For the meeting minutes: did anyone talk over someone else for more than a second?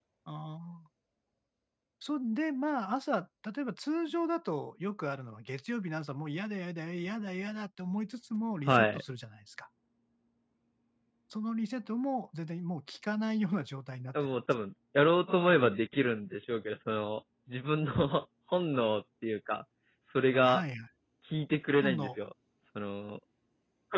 No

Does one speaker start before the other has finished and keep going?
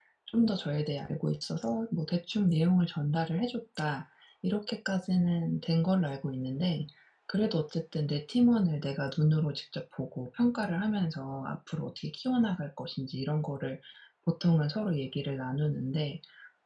No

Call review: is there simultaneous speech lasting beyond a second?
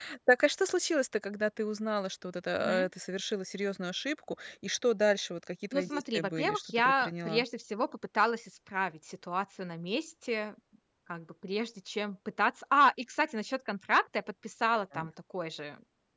Yes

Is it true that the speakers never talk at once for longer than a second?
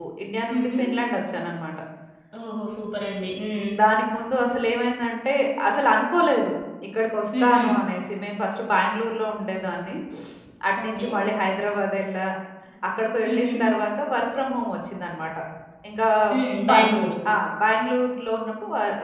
Yes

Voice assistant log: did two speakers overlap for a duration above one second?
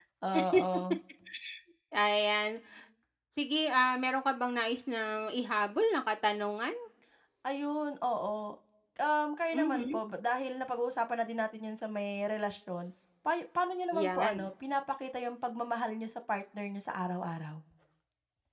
No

